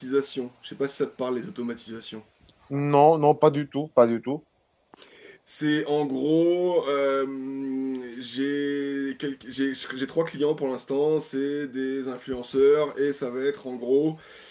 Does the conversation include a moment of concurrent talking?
No

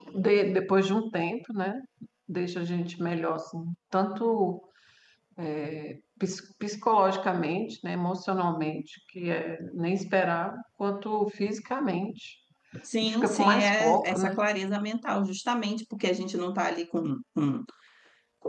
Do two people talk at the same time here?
Yes, from 13.0 s

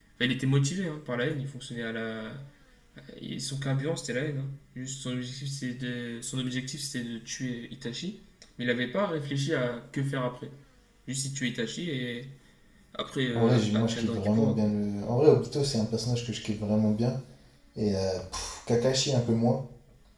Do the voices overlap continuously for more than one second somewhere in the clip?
Yes, from 13.3 s

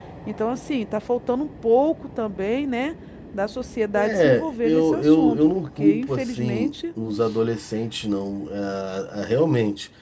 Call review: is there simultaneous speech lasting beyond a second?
Yes, from 4.0 s

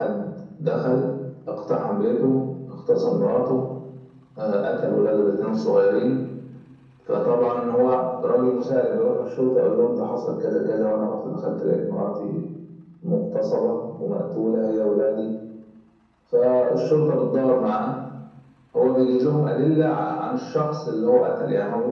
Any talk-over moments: No

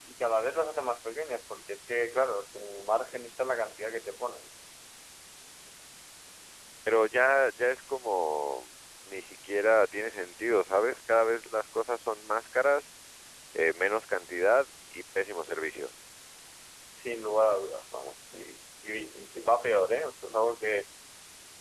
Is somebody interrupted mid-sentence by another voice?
No

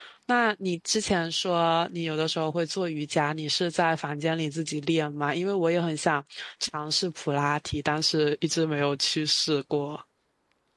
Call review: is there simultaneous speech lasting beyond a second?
No

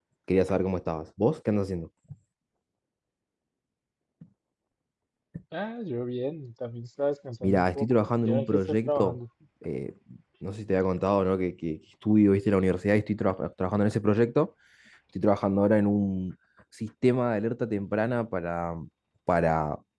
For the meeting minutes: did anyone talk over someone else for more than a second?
Yes, from 7.4 s

